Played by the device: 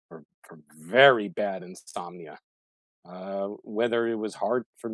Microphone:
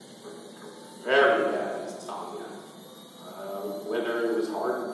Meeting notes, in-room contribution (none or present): none